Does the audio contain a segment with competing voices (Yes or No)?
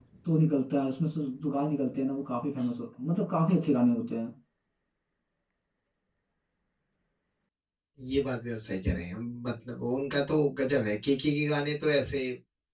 No